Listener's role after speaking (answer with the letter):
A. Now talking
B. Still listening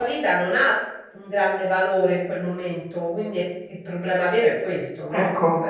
A